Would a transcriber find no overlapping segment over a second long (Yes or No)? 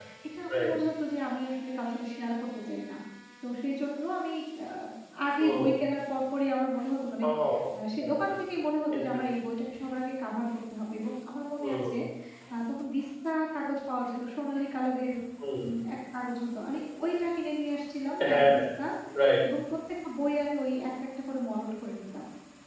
Yes